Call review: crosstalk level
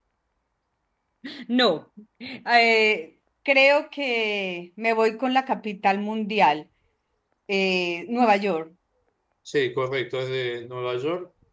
none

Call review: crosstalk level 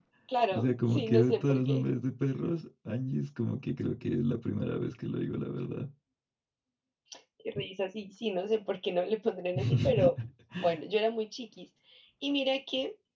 present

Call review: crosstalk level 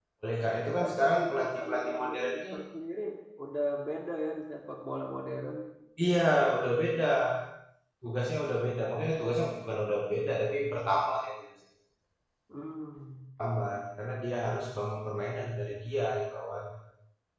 present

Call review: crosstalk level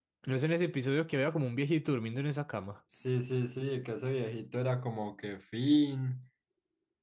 none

